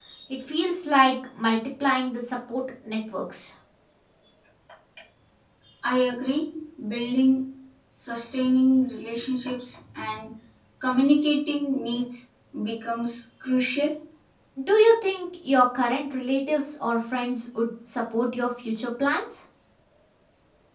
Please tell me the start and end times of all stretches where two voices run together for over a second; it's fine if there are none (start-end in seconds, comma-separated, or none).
none